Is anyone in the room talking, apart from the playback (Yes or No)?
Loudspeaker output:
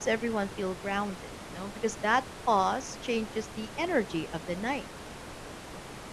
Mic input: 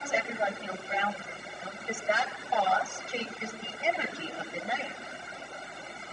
No